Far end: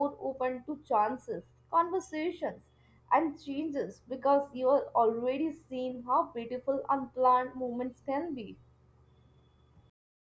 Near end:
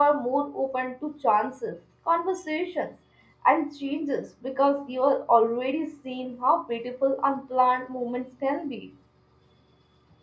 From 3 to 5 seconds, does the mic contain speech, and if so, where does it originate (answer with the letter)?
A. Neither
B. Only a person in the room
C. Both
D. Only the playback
D